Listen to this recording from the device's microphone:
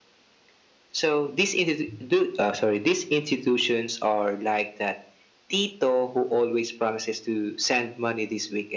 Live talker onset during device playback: none

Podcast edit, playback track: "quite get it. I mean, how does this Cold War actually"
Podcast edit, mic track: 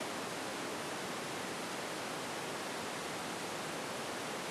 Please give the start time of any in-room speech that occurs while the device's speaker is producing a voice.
none

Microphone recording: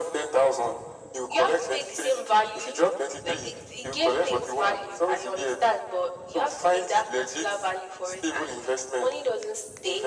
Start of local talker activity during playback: none

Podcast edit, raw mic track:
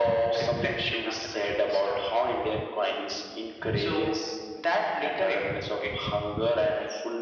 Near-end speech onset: none

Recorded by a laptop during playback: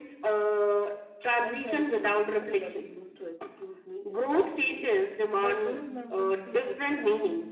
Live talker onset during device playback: 1.4 s

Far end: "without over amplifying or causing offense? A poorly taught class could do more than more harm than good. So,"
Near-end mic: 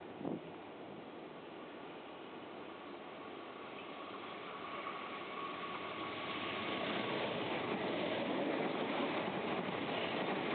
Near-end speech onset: none

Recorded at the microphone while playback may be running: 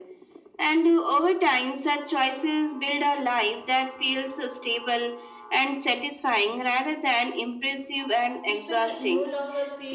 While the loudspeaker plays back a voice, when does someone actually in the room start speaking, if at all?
8.4 s

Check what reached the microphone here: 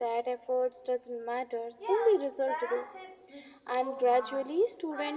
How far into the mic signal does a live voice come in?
1.8 s

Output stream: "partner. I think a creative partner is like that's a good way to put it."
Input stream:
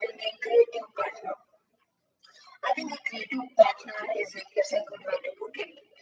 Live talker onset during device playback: none

